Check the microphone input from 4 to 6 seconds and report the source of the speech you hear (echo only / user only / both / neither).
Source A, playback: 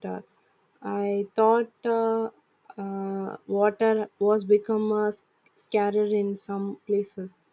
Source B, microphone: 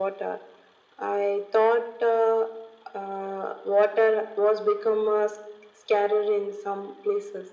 echo only